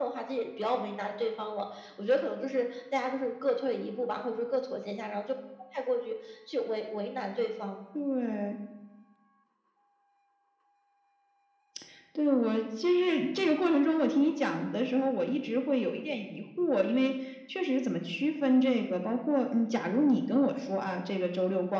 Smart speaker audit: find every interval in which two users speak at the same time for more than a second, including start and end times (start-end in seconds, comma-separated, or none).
none